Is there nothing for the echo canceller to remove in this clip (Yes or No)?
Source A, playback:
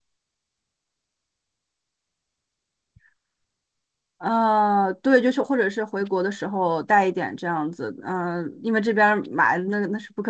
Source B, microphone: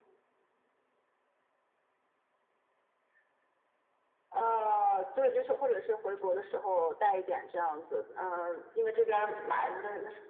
No